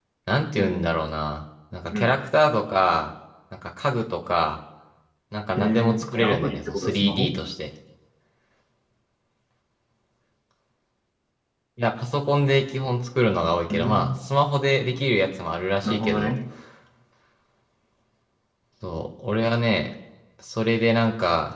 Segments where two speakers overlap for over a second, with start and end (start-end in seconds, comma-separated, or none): 5.6-7.3